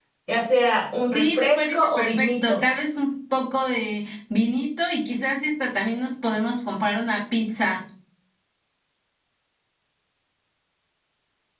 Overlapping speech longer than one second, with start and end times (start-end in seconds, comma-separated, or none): 1.1-2.6